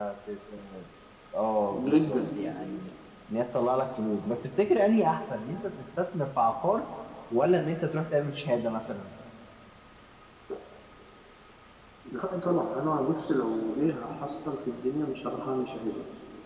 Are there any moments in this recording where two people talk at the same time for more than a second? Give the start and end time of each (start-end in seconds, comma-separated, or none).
none